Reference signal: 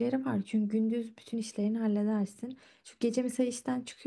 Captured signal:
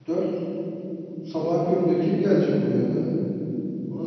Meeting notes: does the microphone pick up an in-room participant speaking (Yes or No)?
Yes